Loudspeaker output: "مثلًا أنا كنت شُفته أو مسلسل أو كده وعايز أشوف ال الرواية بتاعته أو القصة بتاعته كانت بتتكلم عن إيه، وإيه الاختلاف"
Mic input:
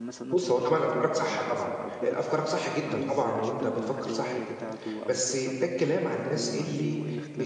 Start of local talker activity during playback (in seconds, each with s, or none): 0.3 s